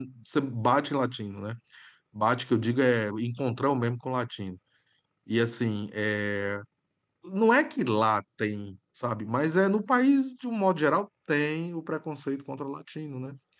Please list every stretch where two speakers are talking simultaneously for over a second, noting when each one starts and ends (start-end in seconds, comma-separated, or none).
none